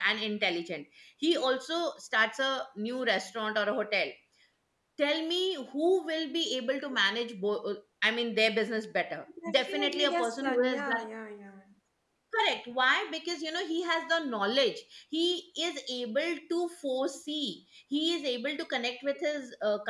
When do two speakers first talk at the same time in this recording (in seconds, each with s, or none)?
9.4 s